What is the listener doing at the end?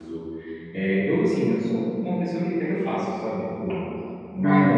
listening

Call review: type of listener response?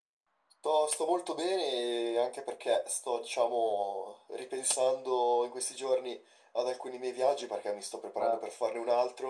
listening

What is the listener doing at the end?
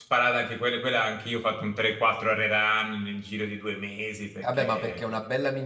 taking over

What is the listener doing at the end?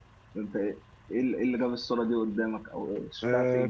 taking over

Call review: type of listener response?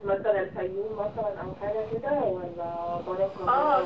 taking over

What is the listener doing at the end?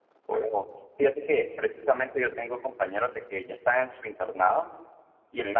listening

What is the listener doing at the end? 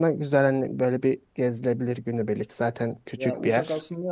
taking over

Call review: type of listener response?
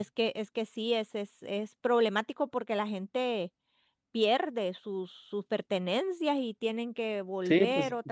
taking over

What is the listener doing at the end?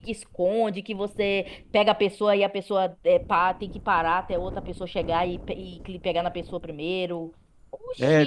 taking over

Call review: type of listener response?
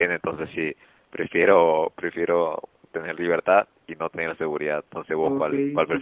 taking over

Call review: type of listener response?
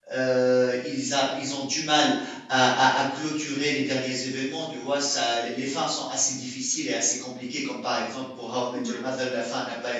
listening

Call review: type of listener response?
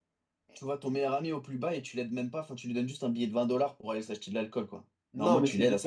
taking over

